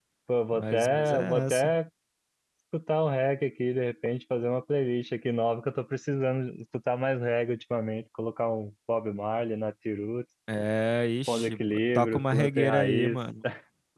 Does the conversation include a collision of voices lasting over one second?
Yes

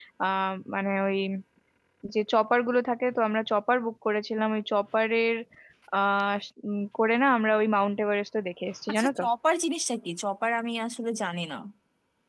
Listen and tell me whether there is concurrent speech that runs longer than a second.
No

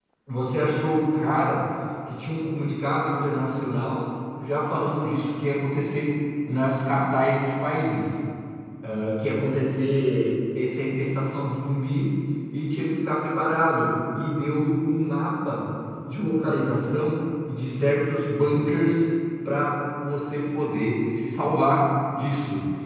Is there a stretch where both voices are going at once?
No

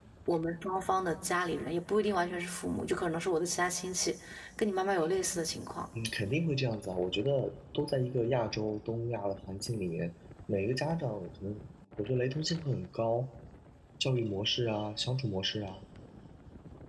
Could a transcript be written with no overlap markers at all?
Yes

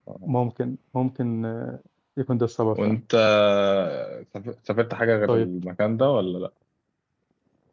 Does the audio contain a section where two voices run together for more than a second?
No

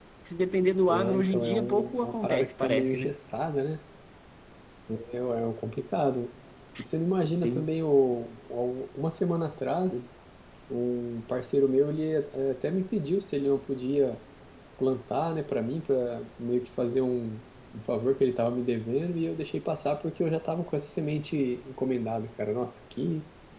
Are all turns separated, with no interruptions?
No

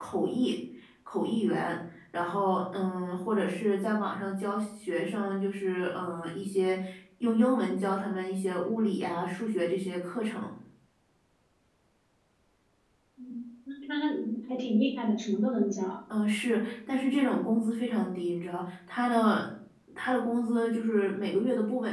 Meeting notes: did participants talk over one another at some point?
No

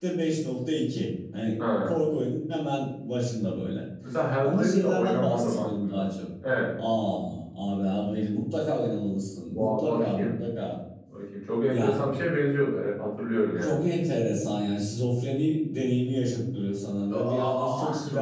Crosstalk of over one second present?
Yes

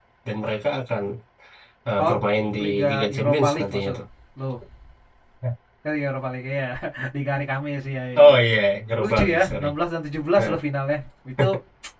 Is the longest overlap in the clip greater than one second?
Yes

